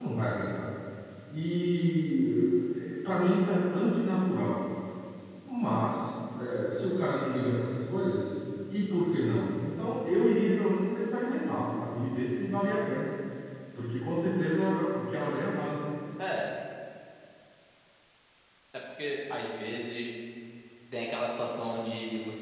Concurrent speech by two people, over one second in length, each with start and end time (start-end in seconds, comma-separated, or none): none